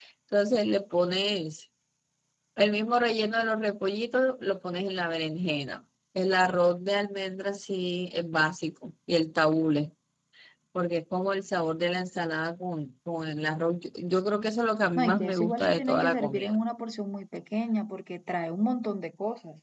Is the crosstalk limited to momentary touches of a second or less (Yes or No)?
No